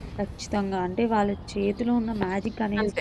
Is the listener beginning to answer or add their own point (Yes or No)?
No